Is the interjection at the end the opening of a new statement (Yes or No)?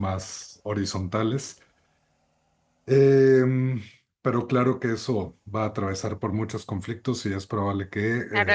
Yes